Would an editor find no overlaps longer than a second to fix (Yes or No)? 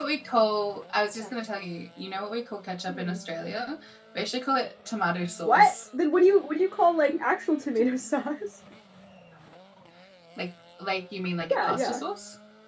Yes